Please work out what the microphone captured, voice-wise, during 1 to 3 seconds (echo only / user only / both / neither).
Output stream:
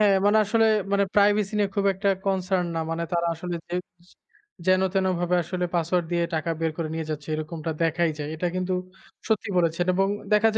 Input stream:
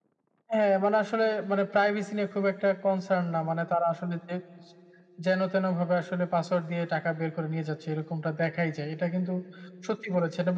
echo only